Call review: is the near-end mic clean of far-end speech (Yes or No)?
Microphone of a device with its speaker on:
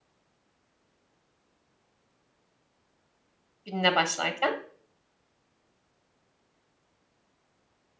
Yes